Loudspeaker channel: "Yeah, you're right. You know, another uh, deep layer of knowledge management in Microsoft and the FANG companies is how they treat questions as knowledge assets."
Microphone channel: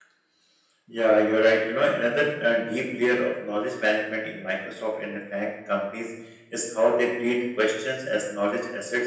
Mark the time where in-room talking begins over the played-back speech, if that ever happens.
none

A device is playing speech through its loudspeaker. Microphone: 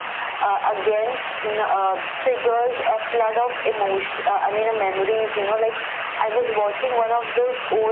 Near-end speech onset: none

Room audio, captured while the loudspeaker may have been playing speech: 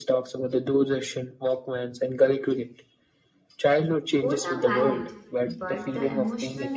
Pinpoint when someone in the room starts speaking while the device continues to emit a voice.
4.2 s

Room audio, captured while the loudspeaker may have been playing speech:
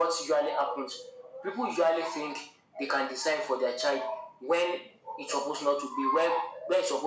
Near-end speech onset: none

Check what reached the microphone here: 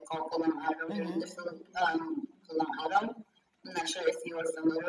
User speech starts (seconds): 0.9 s

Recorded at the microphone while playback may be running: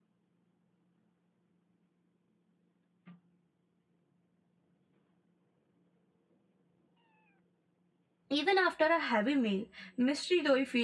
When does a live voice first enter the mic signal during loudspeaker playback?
8.3 s

